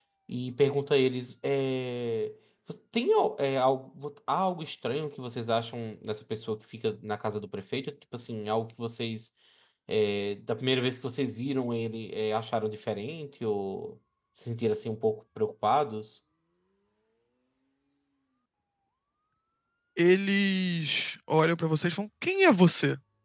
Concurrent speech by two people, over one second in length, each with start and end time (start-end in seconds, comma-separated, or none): none